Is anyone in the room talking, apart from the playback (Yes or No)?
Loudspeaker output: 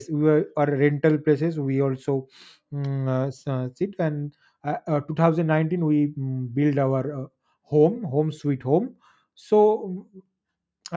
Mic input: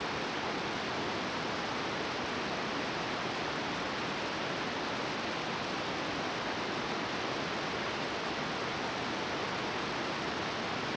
No